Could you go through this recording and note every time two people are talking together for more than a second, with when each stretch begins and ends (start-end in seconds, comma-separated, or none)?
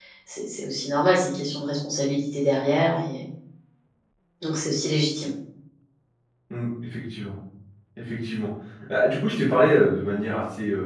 none